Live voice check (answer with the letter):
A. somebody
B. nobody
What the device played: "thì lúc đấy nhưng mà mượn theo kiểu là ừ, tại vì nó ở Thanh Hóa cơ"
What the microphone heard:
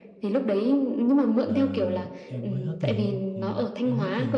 A